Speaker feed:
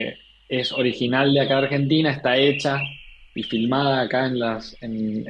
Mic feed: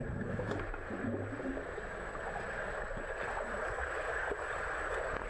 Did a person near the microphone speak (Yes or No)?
No